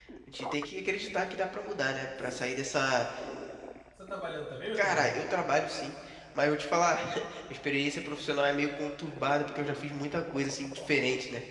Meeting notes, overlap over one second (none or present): none